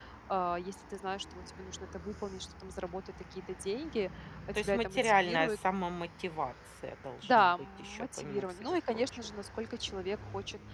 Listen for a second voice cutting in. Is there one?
Yes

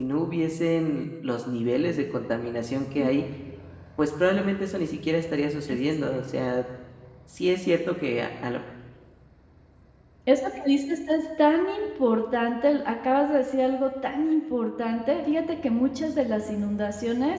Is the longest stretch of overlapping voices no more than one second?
Yes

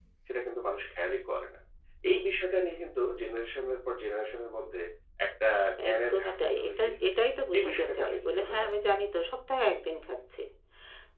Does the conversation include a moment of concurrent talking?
Yes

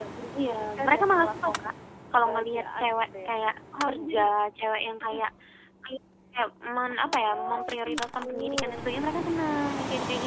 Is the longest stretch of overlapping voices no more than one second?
No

